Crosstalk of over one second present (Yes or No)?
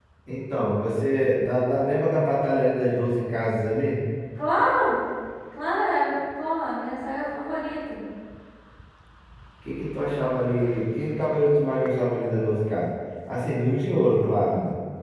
No